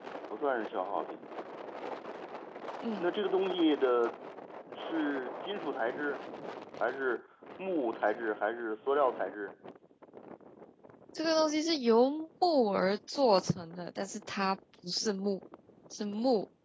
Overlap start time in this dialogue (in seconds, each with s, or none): none